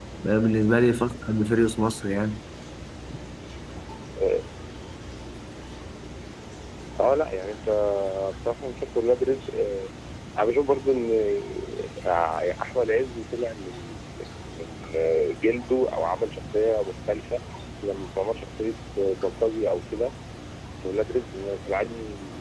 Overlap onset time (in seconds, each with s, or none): none